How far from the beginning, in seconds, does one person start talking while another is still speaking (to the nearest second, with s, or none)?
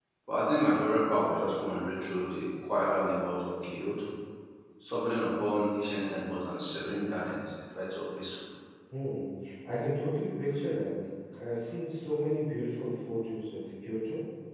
none